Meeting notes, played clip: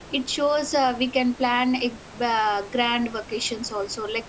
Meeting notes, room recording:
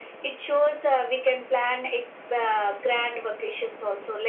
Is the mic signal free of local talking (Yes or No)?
Yes